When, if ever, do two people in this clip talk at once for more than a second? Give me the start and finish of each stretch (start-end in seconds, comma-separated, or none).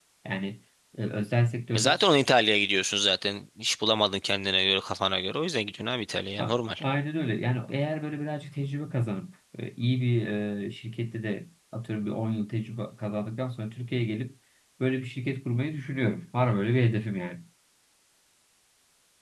none